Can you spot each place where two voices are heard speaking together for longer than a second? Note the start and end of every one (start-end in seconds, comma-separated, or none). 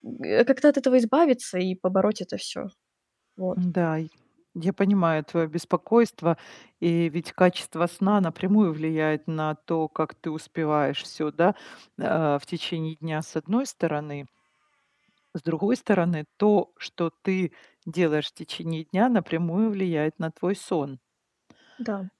none